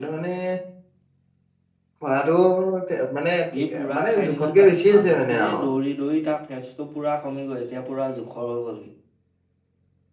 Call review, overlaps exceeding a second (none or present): present